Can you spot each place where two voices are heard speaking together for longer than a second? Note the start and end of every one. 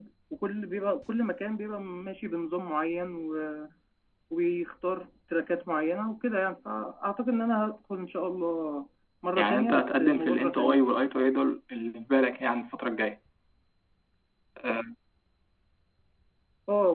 9.4-10.9

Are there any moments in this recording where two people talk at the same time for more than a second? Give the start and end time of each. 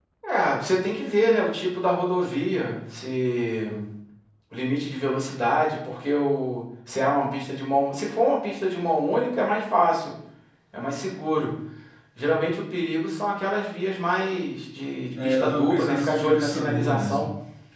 15.2-17.3

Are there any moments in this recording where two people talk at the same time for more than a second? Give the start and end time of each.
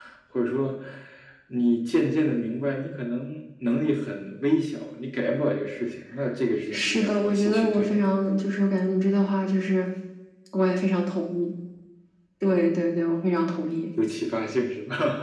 6.7-8.0

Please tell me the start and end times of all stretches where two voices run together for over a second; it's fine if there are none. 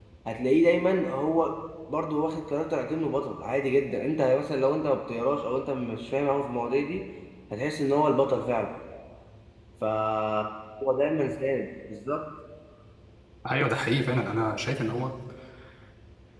none

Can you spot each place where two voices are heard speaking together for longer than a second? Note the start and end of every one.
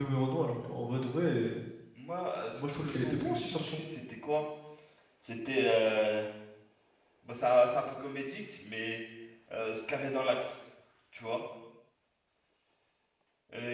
2.5-3.9

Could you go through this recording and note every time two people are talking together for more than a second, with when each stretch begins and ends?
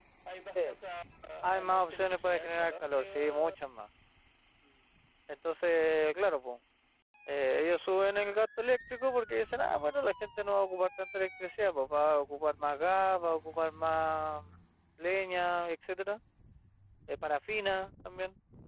1.4-3.6

